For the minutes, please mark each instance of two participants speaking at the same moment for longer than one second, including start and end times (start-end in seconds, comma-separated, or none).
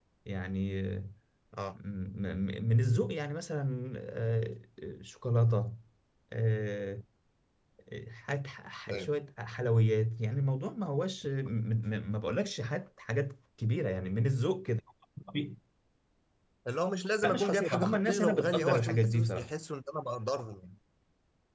17.2-19.5